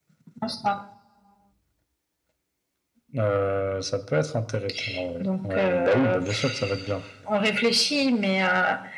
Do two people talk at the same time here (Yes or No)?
Yes